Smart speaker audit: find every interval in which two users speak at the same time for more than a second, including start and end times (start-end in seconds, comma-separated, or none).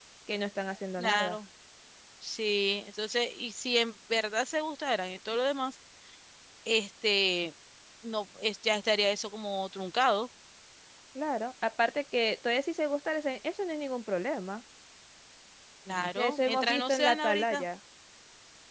16.2-17.6